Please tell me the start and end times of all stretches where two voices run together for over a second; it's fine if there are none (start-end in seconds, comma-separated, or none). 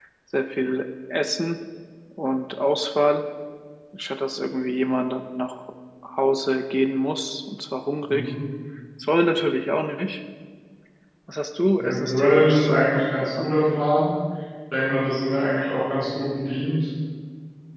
11.8-13.4